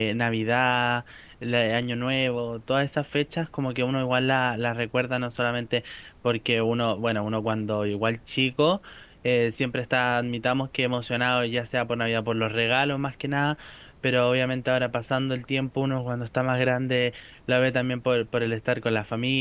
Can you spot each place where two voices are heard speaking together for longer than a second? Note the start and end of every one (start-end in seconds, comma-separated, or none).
none